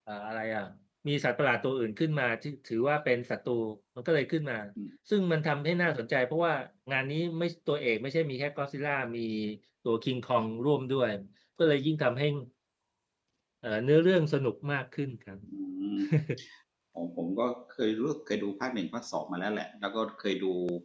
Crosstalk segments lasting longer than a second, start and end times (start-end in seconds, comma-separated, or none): none